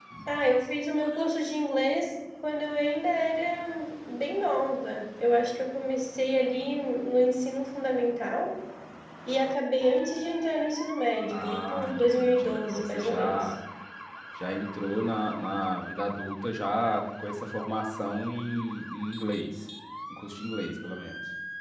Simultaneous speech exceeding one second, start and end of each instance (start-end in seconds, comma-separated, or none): 11.3-13.5